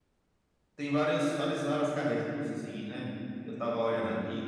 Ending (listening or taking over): listening